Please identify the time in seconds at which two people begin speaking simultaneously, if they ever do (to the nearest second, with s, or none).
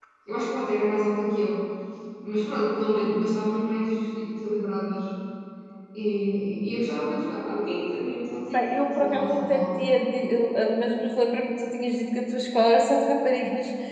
9 s